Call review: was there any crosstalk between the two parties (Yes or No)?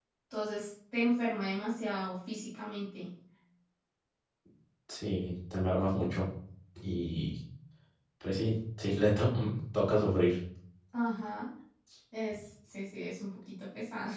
No